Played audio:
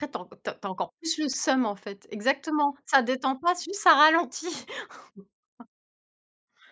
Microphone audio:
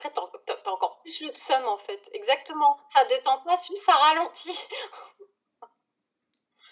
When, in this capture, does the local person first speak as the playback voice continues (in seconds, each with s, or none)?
none